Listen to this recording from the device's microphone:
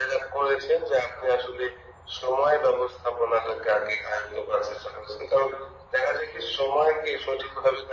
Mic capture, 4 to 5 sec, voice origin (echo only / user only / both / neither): echo only